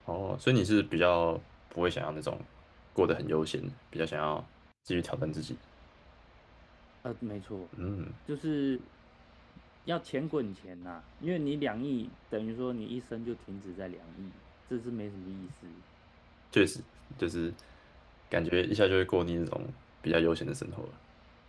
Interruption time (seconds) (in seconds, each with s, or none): none